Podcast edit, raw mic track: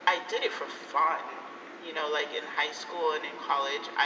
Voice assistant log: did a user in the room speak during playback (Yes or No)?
No